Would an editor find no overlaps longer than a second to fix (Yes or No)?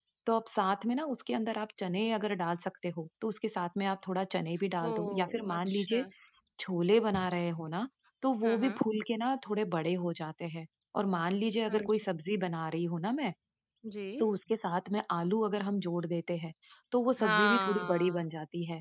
No